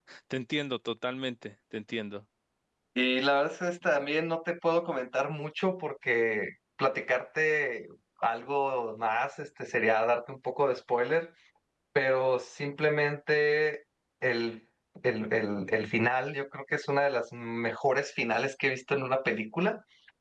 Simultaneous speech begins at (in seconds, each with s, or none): none